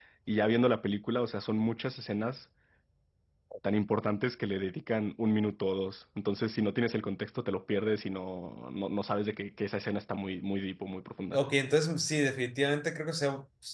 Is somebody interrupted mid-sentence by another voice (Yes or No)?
No